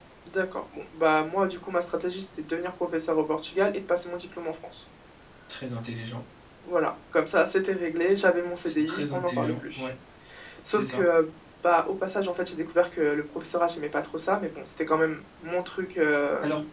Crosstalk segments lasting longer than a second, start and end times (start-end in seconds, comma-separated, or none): 8.7-9.9